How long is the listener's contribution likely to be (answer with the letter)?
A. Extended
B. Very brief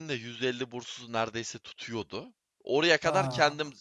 B